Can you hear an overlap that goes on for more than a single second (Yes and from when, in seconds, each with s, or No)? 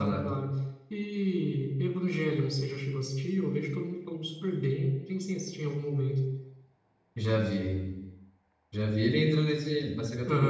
No